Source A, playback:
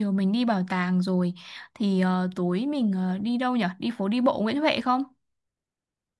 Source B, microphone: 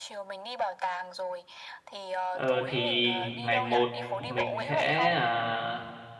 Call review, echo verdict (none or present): present